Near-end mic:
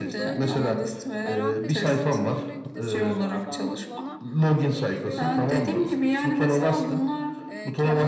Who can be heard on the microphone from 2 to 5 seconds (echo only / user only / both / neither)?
both